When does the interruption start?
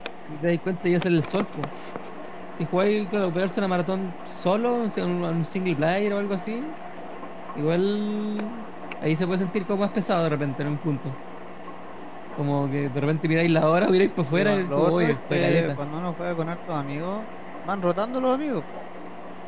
14.3 s

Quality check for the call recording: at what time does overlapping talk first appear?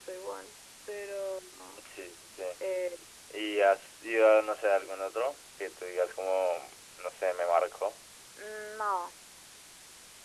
none

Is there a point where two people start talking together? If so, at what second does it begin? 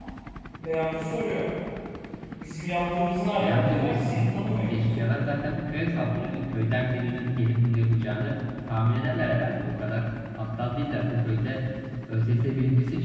3.4 s

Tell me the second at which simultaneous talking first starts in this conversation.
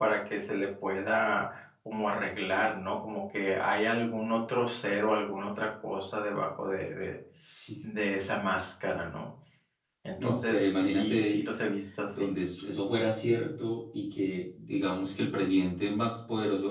10.2 s

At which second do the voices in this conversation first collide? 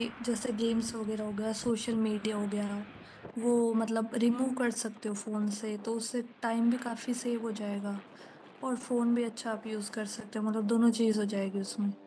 none

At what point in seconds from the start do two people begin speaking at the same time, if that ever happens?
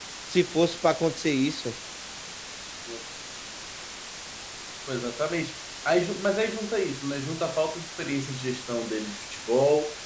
none

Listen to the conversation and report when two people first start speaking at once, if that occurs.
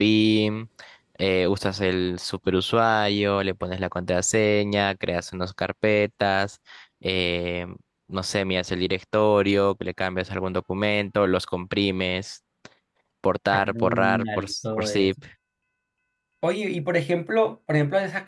13.5 s

